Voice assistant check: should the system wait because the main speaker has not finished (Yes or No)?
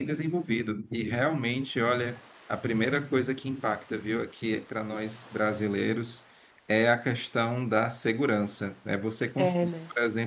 Yes